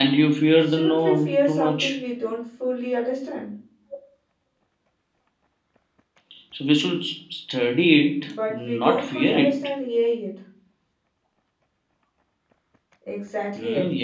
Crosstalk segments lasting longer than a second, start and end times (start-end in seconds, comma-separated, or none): 0.7-2.0, 8.2-9.6